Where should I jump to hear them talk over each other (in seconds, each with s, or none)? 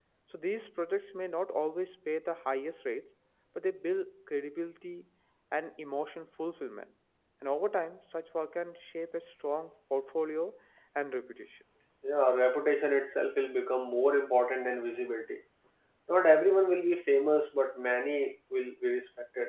none